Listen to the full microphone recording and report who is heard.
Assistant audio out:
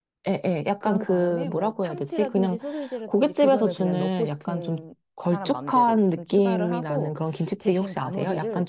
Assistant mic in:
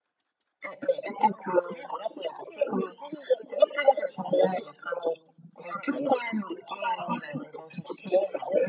echo only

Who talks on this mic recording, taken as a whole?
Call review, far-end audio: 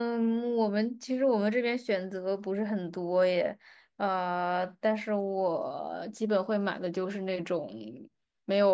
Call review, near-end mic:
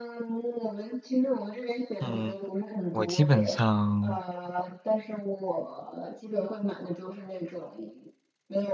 both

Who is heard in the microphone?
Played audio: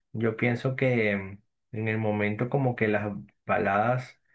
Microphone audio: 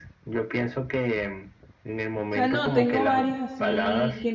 both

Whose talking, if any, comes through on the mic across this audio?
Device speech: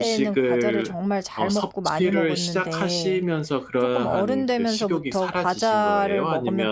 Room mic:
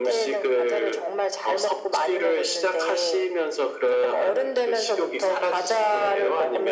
echo only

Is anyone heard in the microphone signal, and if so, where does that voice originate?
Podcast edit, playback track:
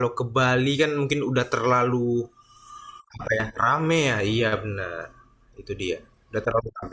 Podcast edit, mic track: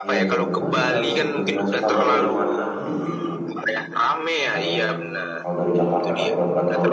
both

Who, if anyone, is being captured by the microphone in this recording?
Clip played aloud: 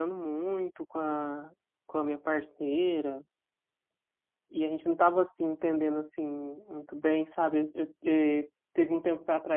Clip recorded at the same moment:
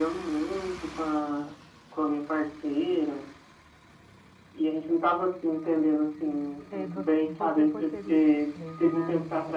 both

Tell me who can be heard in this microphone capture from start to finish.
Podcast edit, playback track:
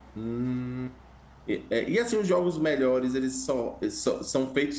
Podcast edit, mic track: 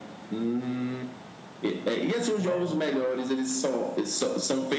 both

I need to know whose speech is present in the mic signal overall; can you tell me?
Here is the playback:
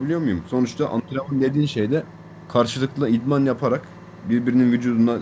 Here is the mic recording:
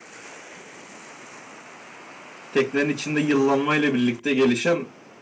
user only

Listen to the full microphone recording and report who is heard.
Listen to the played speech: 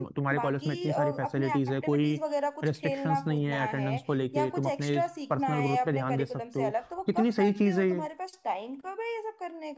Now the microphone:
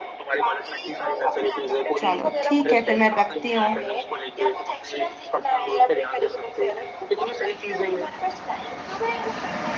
both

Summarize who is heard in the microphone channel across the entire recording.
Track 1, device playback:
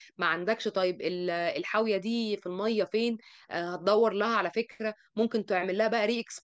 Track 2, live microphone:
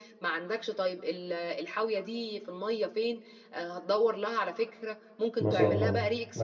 both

